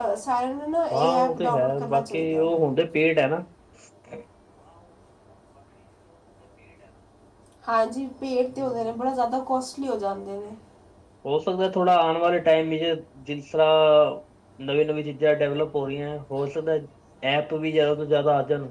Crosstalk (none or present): present